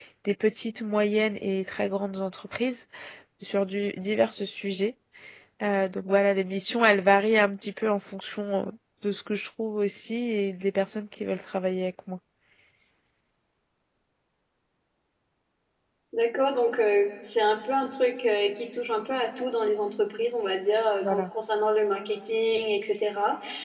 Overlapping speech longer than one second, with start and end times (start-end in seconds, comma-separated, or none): none